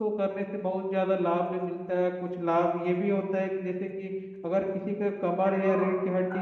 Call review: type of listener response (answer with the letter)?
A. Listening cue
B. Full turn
A